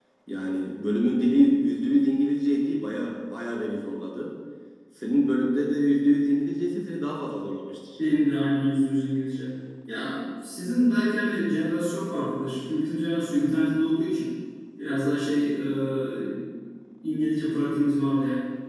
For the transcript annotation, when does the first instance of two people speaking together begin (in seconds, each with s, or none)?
none